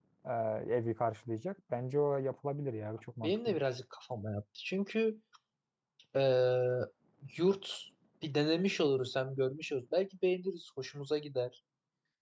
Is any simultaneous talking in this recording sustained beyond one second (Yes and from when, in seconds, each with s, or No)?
No